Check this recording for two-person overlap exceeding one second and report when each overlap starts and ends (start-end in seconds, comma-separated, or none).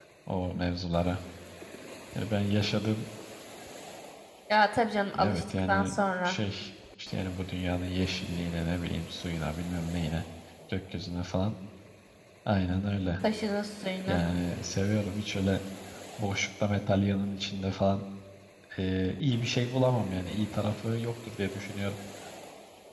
5.2-6.4